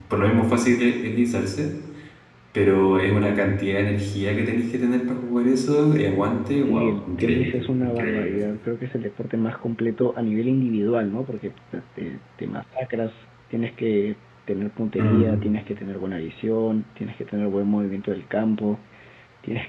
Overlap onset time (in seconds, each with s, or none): 6.7 s